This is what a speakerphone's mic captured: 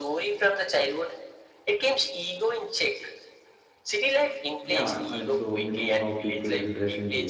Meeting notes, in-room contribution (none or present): present